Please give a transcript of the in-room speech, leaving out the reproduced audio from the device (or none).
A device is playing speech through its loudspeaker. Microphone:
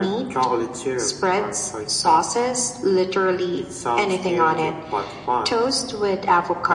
none